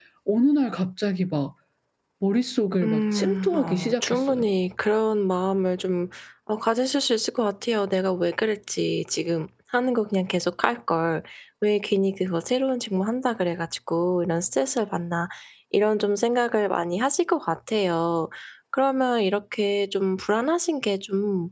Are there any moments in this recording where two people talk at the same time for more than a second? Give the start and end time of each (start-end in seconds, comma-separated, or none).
2.8-4.5